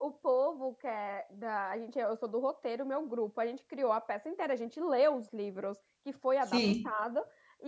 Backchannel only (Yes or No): Yes